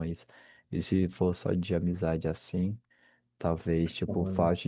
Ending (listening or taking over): listening